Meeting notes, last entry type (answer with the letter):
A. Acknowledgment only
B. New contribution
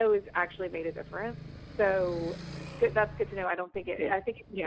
A